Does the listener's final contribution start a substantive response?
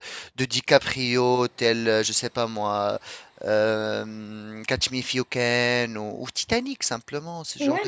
Yes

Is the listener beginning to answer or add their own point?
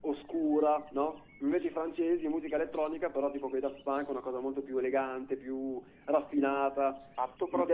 Yes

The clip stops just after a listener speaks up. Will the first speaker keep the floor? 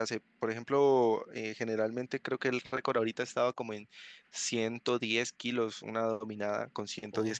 Yes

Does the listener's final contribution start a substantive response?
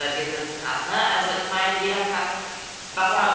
Yes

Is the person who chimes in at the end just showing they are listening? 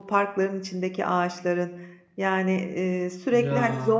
Yes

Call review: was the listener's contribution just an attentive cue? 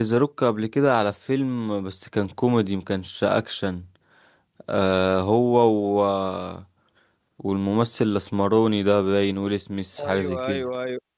No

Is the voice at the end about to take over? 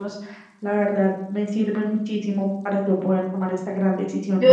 Yes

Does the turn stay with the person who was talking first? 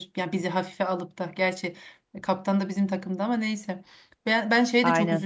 Yes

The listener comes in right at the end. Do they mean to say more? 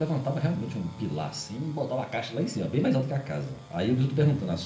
No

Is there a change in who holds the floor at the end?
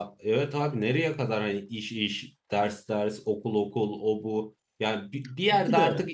No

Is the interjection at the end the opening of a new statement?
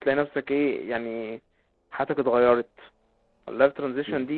No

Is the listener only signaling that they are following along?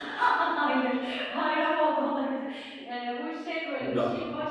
Yes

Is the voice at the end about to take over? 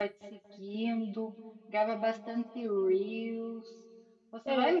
No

